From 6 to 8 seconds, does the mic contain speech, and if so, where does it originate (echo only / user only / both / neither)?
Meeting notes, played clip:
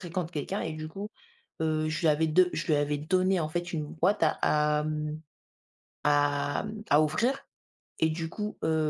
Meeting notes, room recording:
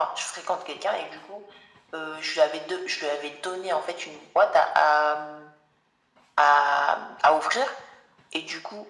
echo only